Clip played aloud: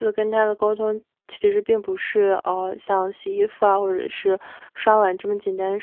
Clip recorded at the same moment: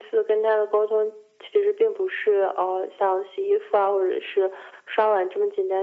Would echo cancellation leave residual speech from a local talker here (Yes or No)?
No